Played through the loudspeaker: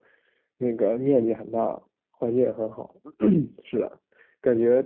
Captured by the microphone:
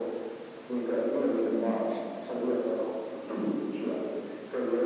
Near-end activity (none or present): present